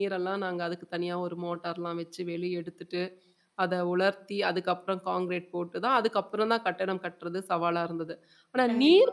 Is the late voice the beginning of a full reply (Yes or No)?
No